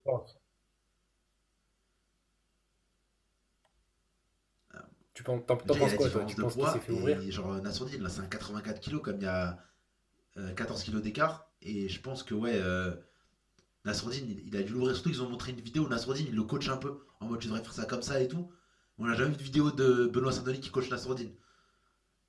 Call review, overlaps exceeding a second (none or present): present